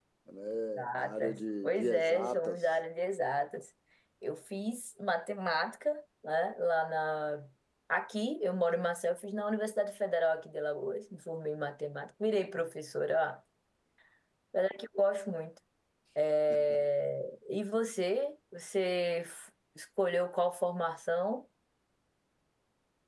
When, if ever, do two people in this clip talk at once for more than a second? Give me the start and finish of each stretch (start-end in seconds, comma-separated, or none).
1.0-2.7